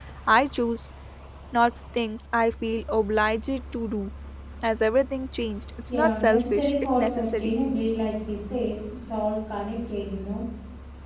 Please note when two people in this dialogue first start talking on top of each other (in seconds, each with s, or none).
5.9 s